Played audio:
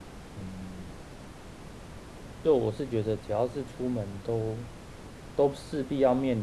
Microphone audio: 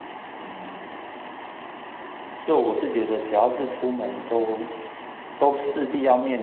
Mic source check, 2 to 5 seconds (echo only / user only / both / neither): echo only